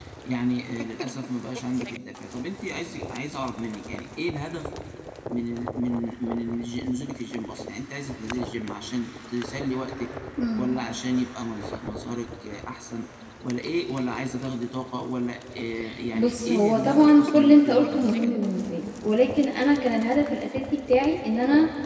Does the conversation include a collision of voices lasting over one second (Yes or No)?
Yes